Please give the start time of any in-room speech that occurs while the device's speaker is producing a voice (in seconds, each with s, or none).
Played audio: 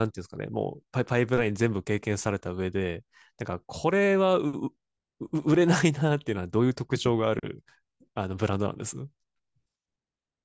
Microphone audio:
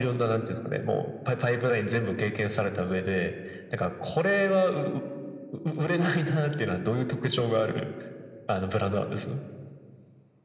none